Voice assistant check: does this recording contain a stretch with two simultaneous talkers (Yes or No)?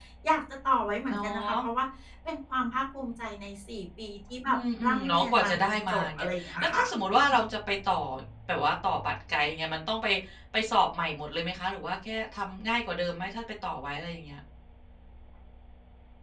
Yes